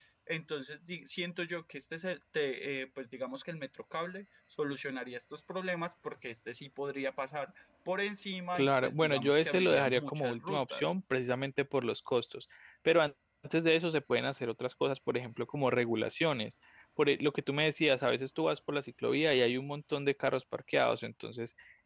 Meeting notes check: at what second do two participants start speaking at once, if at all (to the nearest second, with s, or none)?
9 s